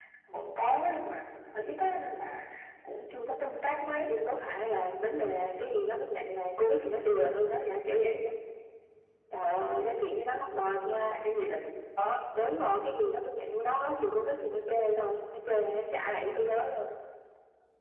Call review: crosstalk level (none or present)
none